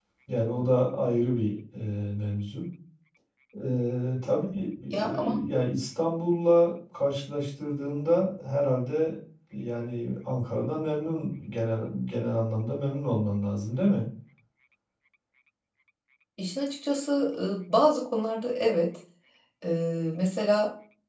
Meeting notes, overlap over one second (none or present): none